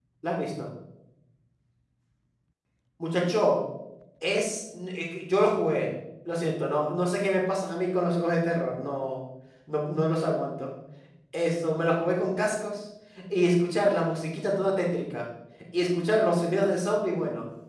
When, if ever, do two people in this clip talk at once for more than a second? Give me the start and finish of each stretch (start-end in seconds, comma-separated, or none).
none